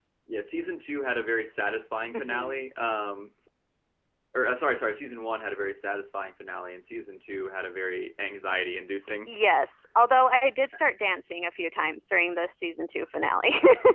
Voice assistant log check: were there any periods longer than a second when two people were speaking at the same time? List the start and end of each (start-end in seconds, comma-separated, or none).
none